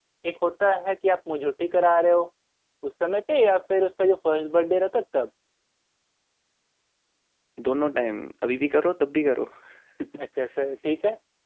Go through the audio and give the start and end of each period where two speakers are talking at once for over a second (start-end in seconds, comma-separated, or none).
none